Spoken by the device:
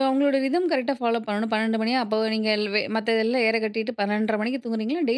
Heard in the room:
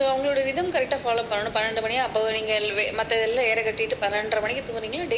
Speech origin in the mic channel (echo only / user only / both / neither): echo only